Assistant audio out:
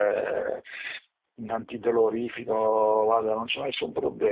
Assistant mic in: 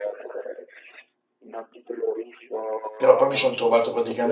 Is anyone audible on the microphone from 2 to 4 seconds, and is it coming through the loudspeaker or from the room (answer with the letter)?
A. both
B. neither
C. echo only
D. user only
A